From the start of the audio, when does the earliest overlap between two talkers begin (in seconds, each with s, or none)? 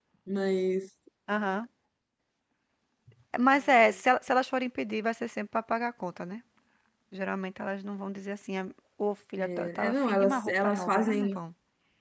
9.4 s